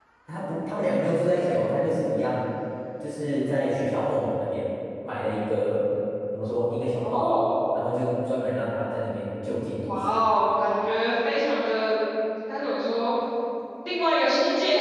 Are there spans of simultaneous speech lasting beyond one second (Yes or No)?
No